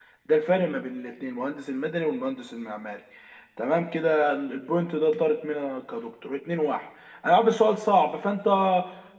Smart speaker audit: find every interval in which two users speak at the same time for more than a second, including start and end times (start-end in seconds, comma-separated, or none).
none